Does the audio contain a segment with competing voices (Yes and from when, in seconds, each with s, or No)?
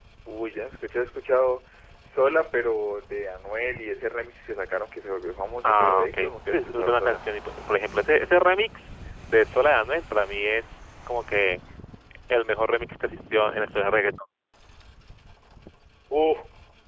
Yes, from 5.6 s